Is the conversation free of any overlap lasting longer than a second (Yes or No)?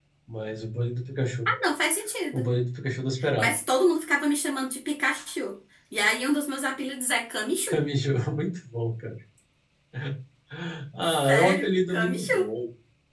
No